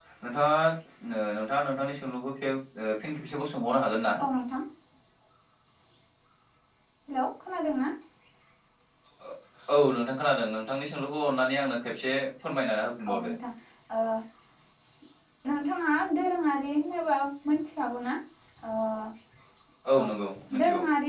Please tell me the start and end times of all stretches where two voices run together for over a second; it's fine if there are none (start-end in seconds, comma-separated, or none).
none